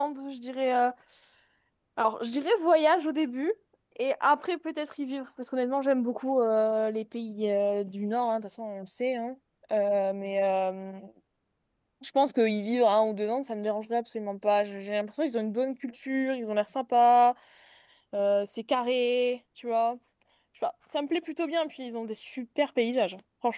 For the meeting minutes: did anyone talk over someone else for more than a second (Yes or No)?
No